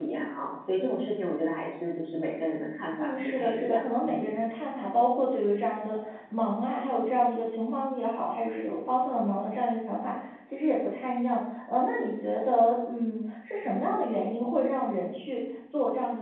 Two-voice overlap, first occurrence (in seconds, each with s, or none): 3.0 s